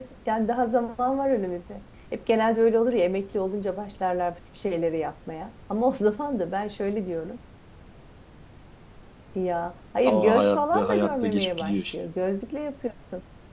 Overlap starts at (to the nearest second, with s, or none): 10 s